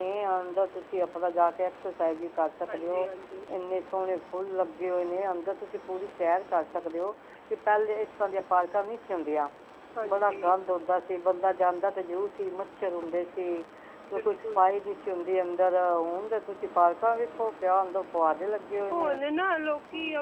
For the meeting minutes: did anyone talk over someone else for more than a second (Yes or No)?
No